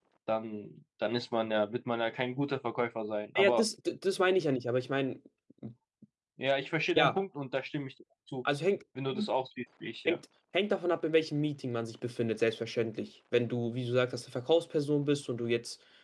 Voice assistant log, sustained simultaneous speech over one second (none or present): none